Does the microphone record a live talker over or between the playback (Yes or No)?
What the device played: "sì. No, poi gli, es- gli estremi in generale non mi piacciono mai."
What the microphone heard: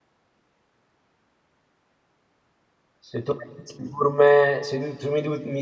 Yes